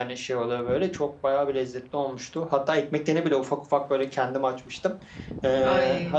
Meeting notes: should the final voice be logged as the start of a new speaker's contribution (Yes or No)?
No